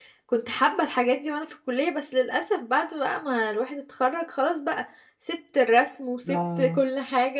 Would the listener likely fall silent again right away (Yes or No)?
Yes